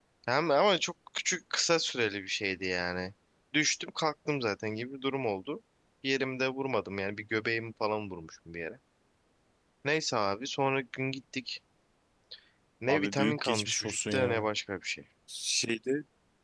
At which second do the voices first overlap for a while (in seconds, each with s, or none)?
12.9 s